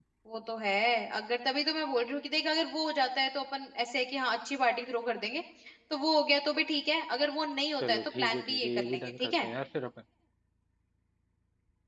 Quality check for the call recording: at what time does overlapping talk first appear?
7.8 s

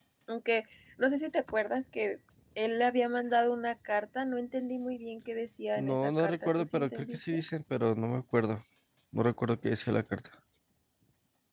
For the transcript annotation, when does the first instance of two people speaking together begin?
5.8 s

